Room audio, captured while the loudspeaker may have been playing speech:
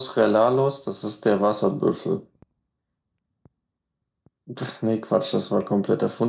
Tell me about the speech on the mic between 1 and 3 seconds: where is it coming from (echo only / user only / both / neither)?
echo only